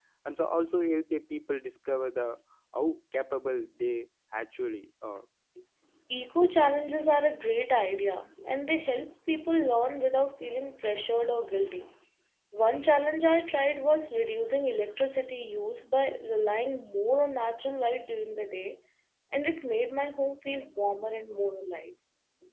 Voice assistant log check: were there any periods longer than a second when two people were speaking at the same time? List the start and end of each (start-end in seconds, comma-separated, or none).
none